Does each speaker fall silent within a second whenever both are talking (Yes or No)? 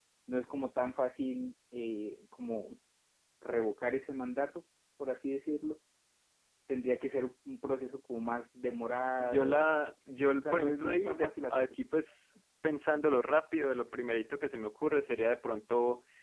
No